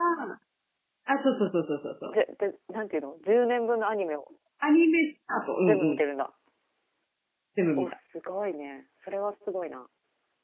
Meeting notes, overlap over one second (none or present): none